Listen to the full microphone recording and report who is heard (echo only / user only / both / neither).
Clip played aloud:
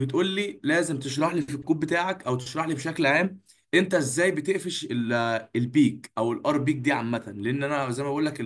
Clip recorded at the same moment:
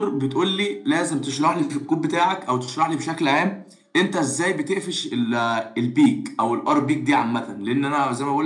echo only